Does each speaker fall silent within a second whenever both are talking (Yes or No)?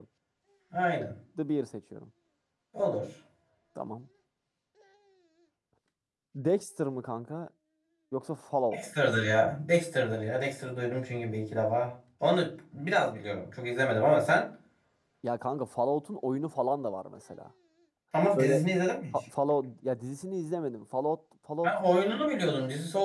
Yes